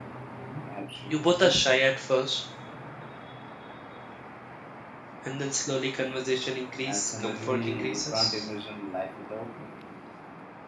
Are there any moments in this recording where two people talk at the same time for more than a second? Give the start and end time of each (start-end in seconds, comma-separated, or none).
6.8-8.5